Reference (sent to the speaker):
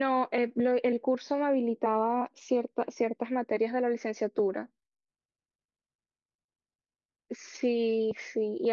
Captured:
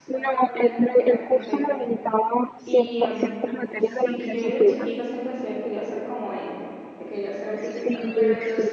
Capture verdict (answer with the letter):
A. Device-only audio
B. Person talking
B